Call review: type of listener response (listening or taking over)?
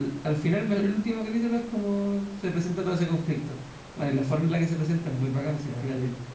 taking over